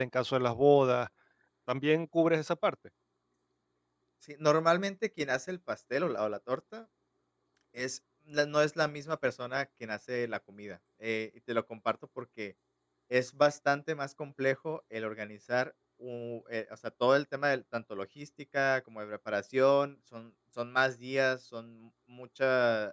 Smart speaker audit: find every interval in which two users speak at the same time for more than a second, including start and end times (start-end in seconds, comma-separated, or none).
none